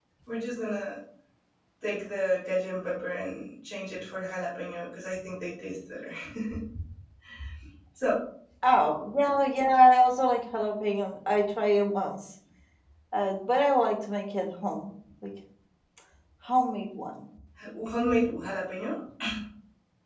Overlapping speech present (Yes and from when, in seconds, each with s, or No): No